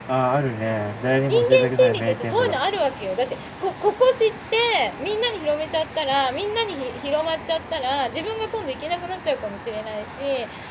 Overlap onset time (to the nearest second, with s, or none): 1 s